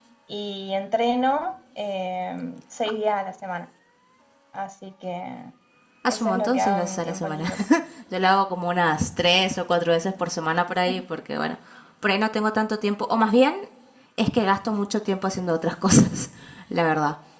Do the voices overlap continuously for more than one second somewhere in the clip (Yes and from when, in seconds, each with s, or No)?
Yes, from 6.1 s